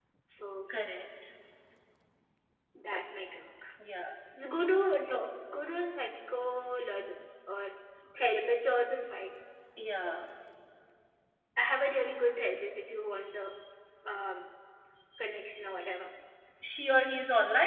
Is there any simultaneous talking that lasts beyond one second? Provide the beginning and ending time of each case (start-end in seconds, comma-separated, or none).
none